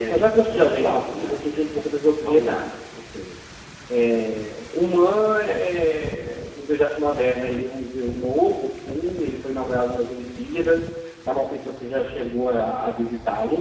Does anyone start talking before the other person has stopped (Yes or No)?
Yes